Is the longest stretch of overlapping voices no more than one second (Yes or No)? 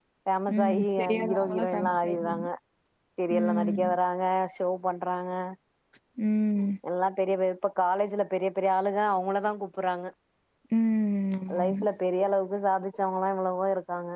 No